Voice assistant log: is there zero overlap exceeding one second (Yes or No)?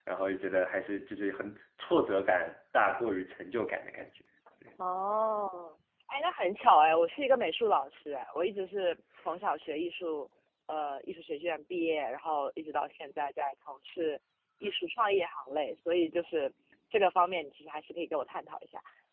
Yes